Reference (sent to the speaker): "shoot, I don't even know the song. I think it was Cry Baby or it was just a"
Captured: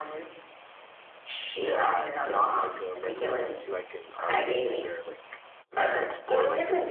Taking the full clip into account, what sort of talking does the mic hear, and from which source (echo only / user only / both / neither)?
both